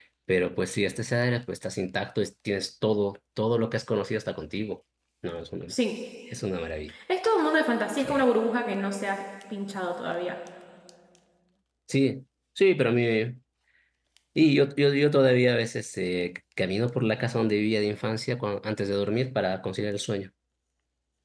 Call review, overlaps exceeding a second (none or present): none